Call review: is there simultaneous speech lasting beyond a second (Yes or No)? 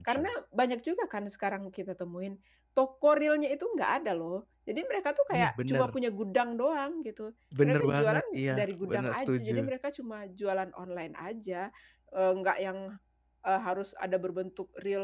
Yes